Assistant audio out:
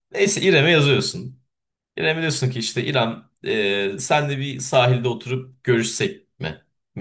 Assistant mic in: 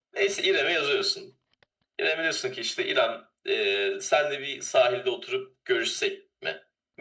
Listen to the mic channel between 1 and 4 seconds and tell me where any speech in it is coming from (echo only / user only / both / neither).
echo only